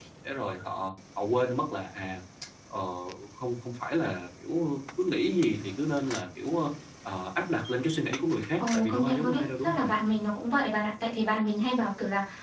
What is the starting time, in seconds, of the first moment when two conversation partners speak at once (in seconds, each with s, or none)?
8.6 s